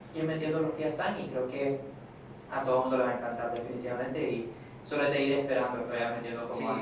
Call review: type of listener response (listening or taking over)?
taking over